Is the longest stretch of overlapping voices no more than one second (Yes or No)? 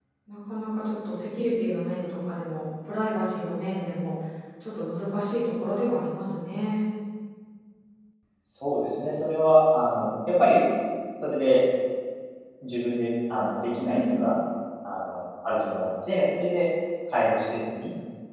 Yes